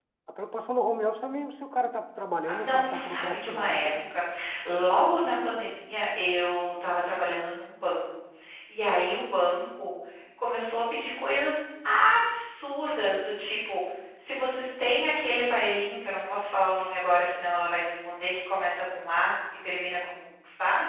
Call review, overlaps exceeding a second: present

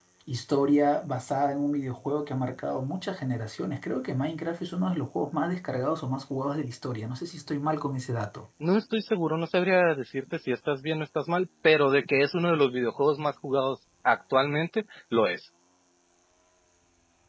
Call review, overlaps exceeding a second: none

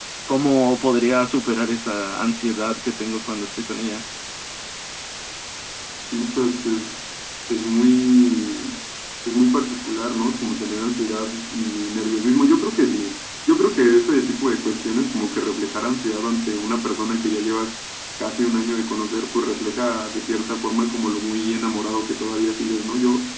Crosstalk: none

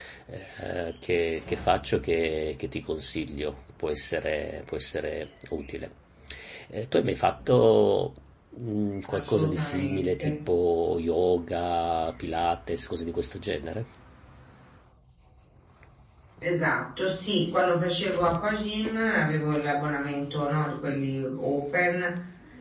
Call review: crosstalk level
present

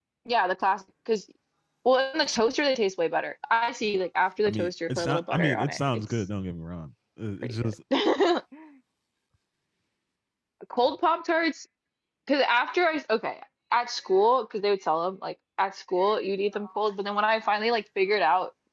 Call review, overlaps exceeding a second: present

